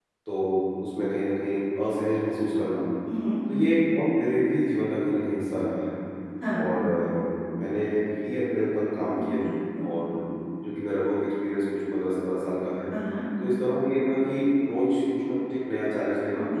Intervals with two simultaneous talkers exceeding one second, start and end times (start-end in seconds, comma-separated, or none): none